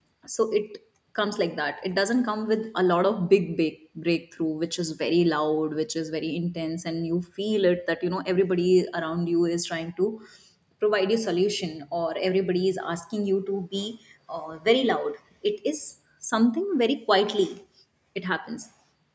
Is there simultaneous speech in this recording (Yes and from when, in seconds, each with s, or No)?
No